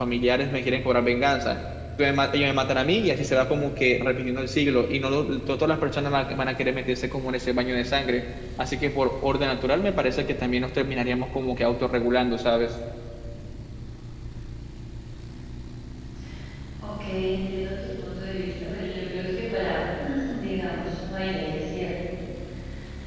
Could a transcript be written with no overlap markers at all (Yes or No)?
Yes